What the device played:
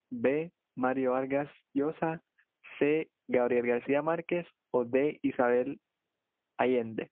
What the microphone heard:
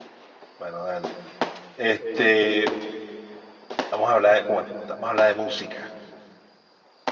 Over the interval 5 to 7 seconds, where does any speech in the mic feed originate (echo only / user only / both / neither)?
user only